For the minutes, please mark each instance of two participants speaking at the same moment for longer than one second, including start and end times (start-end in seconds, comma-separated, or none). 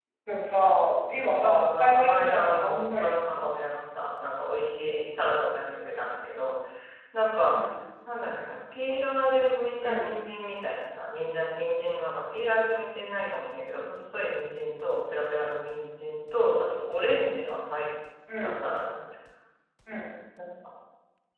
1.4-3.5